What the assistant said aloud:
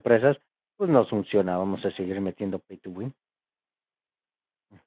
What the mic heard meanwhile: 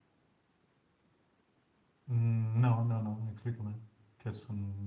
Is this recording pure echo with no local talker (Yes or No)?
No